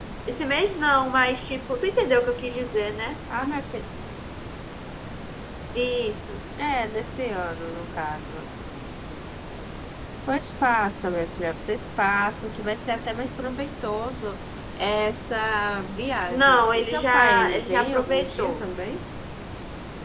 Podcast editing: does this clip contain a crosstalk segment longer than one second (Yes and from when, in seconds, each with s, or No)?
Yes, from 16.3 s